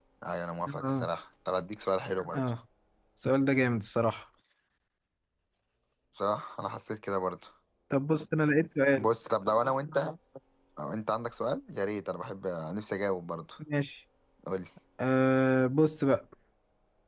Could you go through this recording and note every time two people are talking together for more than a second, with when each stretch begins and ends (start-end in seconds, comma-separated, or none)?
none